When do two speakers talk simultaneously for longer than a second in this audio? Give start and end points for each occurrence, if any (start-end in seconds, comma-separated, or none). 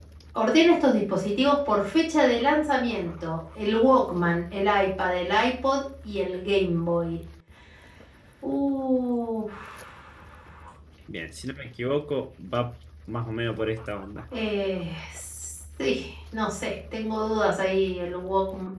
none